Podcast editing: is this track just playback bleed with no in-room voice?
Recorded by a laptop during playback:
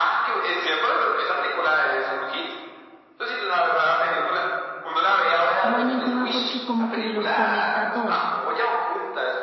No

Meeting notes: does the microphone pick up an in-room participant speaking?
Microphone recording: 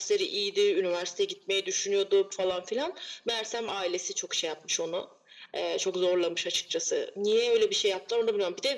No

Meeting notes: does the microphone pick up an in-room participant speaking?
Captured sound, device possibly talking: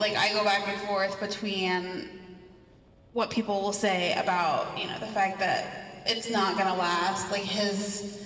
No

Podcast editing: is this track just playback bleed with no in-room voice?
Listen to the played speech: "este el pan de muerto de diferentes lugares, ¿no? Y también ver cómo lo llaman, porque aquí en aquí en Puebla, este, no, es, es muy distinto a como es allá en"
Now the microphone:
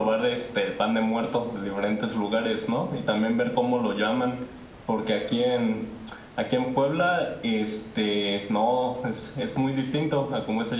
Yes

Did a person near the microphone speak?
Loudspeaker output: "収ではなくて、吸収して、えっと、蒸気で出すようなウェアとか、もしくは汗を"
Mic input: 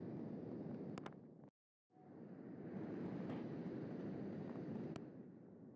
No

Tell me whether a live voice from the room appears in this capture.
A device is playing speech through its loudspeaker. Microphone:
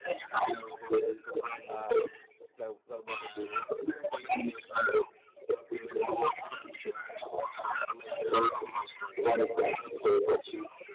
Yes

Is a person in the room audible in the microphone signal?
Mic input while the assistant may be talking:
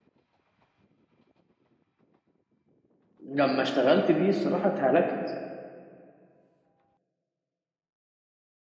Yes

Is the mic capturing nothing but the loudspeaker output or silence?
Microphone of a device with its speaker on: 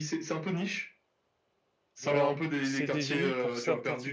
No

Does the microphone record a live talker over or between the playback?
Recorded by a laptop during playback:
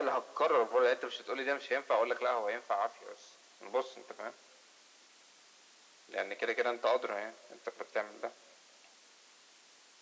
No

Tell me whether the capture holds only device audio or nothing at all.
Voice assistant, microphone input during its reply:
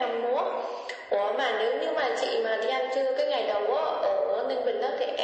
Yes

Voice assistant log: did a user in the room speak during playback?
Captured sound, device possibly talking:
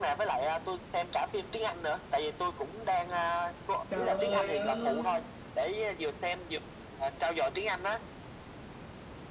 Yes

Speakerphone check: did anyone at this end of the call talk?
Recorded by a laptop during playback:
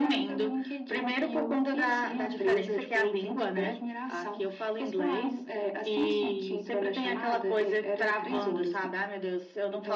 No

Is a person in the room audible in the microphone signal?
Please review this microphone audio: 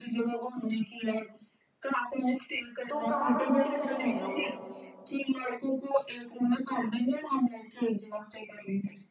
Yes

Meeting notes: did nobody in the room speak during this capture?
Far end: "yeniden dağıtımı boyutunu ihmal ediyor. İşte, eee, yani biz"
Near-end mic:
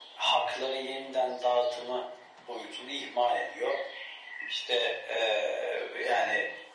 Yes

